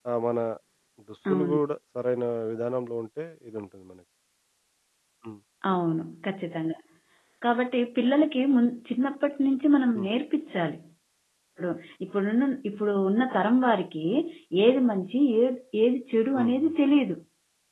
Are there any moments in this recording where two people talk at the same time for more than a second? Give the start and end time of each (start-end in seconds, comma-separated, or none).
none